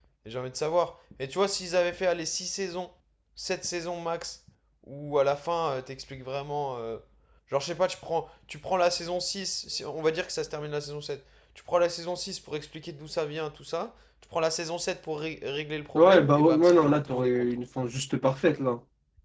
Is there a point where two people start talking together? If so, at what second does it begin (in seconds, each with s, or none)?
16.0 s